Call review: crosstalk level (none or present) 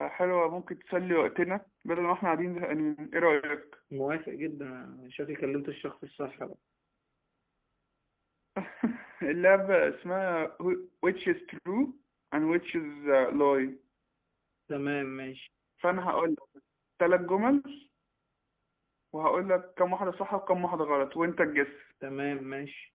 none